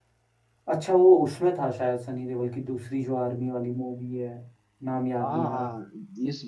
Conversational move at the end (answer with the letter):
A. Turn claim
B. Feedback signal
A